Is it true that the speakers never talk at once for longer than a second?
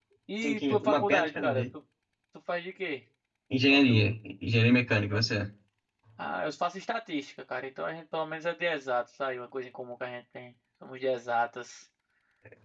No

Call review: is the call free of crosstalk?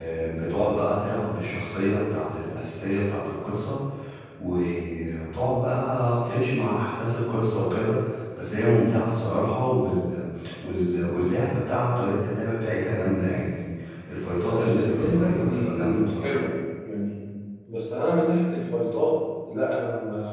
No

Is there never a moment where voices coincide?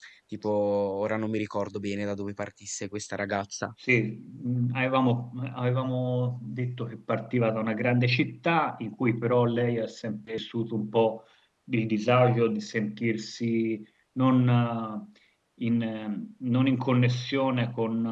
Yes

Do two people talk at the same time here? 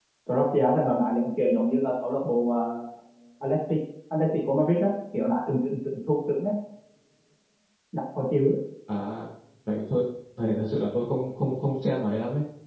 No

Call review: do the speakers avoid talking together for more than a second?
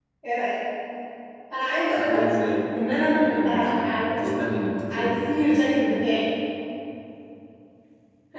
No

